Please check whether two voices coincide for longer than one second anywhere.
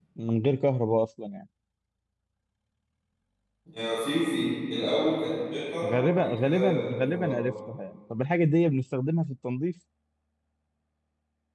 Yes, from 5.8 s

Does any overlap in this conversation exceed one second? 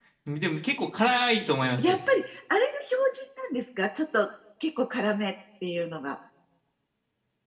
No

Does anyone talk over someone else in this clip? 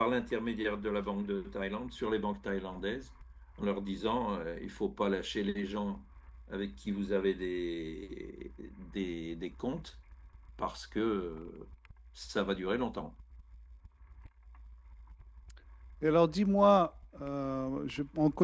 No

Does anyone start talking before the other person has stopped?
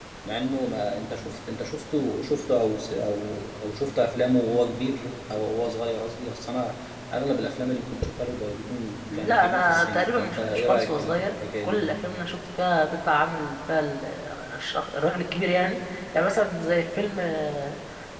Yes, from 9.1 s

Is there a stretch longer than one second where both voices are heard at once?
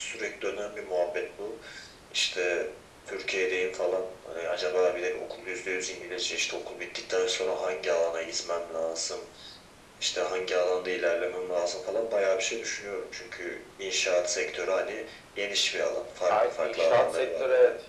Yes, from 16.3 s

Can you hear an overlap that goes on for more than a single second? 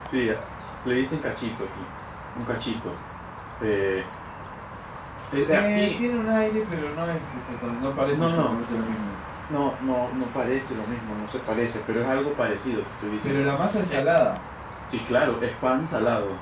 No

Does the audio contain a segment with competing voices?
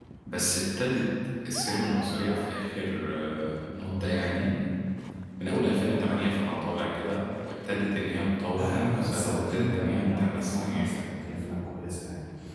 Yes, from 8.6 s

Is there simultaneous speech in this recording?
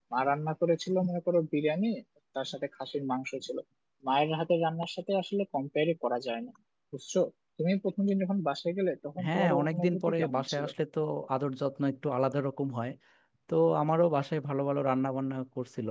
Yes, from 9.2 s

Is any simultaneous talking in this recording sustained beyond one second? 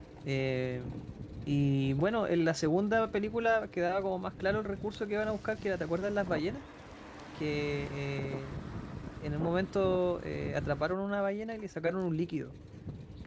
No

